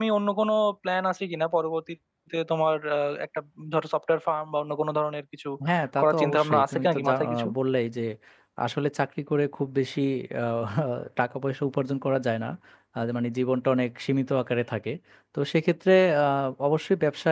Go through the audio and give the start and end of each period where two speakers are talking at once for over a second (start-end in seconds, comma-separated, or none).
6.0-7.5